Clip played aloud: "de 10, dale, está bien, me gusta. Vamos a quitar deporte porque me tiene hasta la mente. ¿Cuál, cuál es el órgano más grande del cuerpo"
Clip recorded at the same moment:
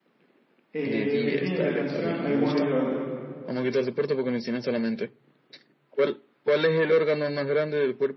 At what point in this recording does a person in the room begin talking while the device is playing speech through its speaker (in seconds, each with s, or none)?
0.7 s